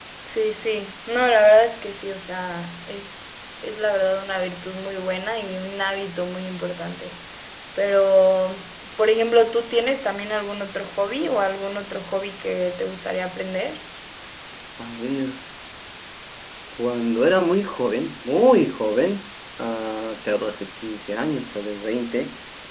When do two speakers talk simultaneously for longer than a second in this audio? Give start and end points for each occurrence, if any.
none

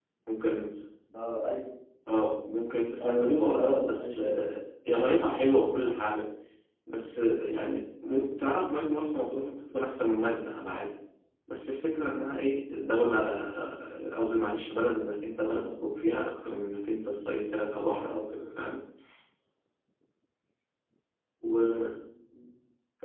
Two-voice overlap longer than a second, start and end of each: 3.0-4.4

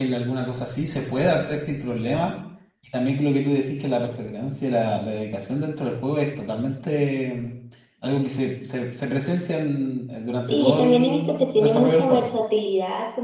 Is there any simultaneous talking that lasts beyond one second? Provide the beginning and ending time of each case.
10.5-12.3

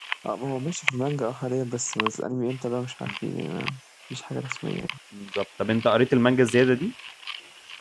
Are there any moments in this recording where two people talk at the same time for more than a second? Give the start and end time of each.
none

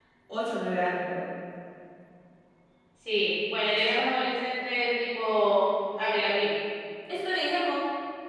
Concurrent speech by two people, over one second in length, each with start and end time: none

